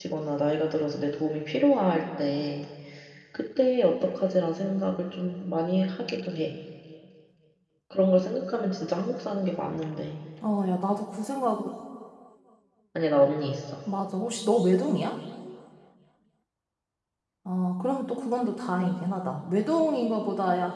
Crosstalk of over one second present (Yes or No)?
No